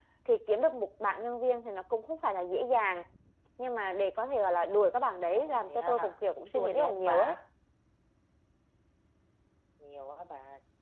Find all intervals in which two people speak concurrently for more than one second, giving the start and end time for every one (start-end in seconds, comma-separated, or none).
5.4-7.4